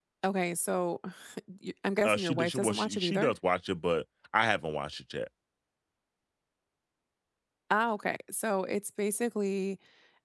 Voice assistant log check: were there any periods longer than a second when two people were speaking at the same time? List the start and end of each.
2.0-3.3

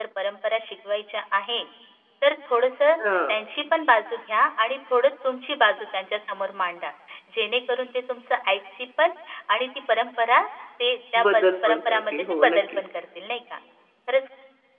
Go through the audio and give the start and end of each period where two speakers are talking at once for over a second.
11.2-12.8

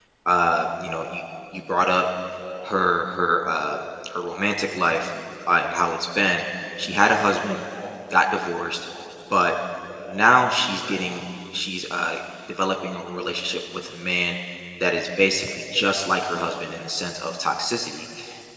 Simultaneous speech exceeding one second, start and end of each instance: none

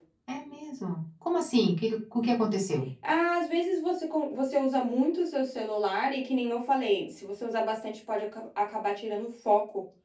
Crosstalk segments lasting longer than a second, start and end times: none

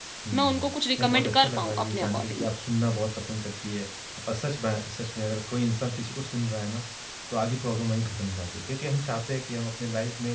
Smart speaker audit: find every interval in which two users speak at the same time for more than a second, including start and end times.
1.0-2.5

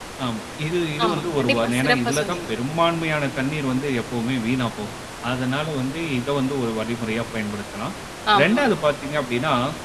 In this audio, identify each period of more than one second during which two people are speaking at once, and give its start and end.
1.1-2.4

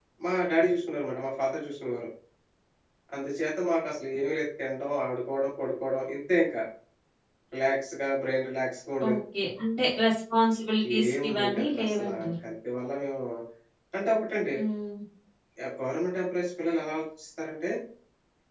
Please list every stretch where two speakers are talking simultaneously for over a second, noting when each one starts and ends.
11.0-12.3

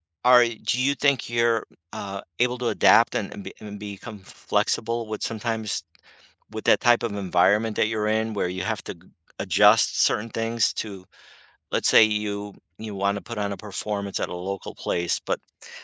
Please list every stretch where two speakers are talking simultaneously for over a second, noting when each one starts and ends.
none

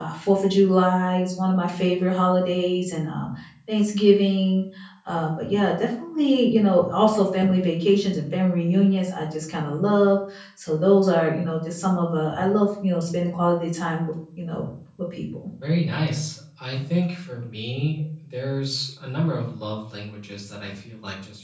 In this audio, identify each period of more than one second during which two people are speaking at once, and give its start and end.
none

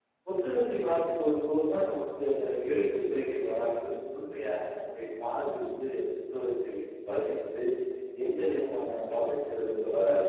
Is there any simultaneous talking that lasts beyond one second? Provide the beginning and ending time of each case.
none

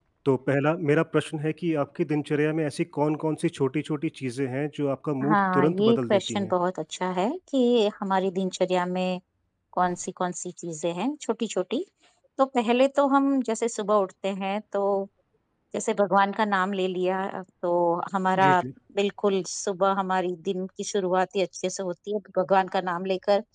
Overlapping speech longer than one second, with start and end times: 5.2-6.5

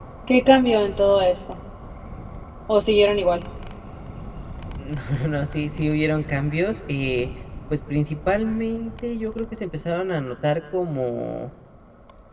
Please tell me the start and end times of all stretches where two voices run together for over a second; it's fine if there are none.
none

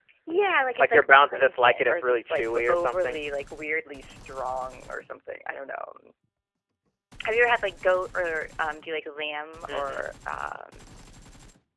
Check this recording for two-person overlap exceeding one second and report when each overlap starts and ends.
0.8-3.2

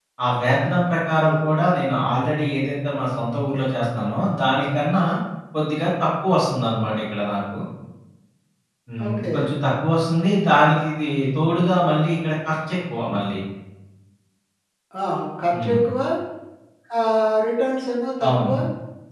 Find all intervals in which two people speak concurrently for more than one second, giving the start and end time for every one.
none

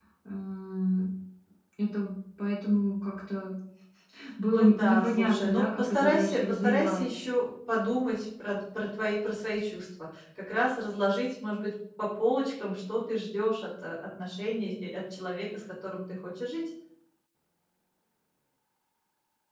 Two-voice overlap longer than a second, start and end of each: 4.5-7.0

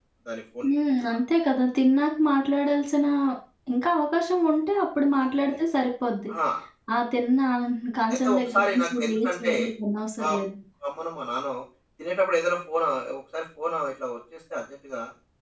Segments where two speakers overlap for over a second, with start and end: 8.1-9.5

